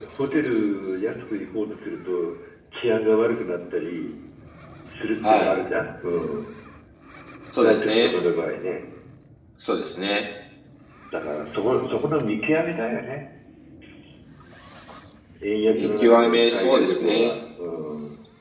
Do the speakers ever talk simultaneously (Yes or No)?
Yes